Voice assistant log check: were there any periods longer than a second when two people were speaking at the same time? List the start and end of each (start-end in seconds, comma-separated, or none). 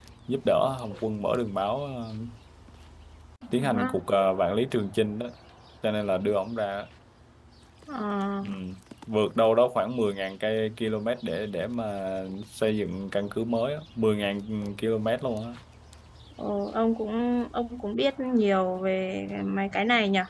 none